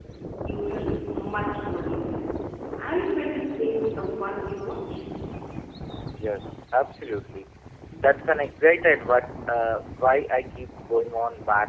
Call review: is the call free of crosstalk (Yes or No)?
Yes